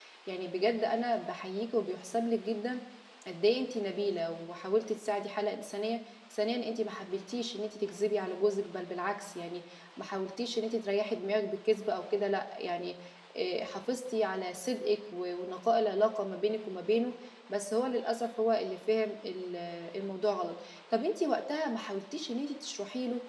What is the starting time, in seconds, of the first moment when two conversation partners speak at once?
none

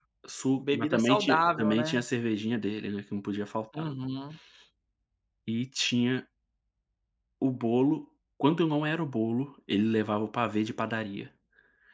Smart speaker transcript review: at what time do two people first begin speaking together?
1 s

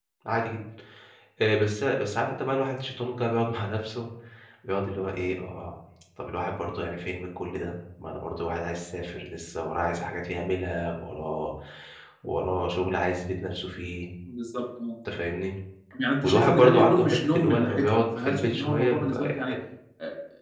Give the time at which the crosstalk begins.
16 s

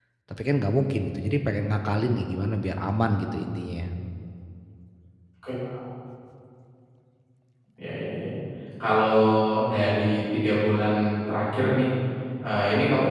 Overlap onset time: none

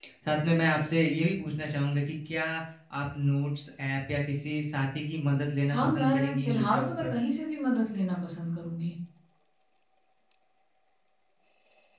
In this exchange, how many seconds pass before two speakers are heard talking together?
6 s

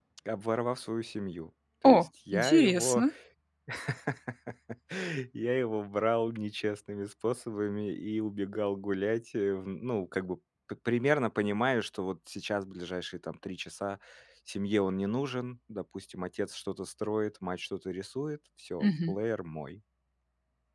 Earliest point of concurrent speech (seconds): 2 s

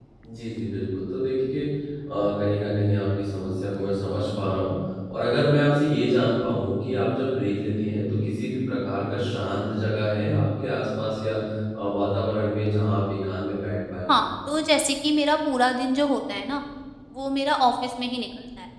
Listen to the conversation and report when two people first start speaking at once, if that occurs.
none

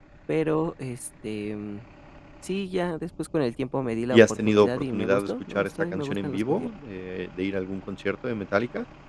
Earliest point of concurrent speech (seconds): 4 s

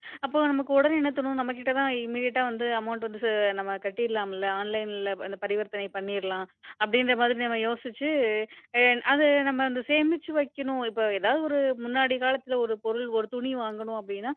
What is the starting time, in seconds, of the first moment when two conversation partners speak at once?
none

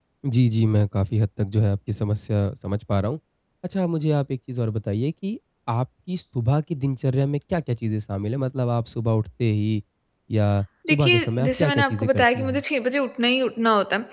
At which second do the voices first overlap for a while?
11 s

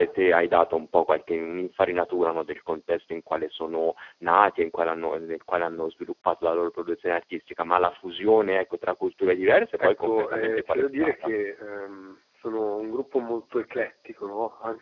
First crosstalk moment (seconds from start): 10 s

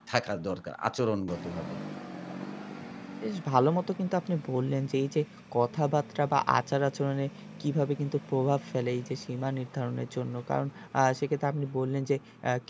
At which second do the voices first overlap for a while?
none

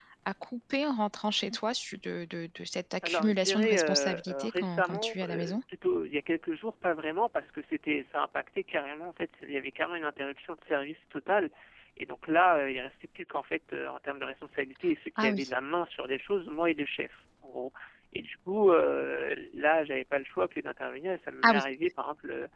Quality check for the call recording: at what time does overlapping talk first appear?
3 s

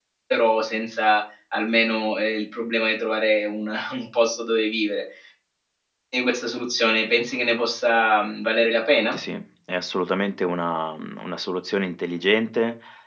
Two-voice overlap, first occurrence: none

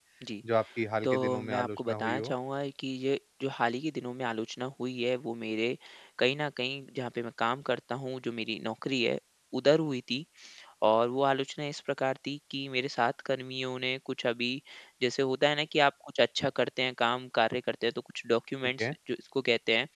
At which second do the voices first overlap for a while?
1 s

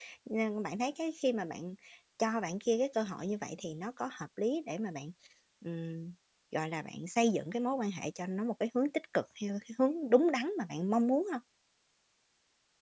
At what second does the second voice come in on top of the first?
none

